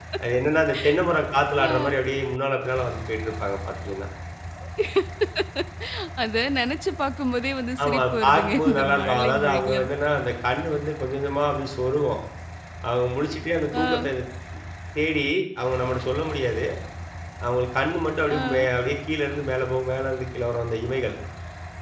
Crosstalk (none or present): present